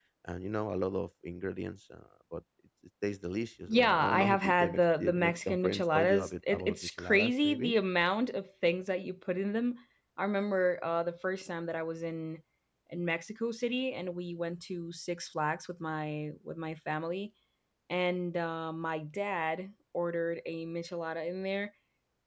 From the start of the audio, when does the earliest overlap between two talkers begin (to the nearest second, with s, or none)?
4 s